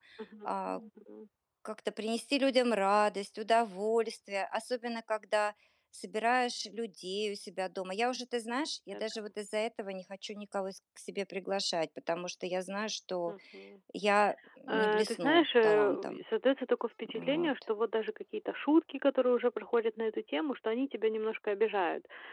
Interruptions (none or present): present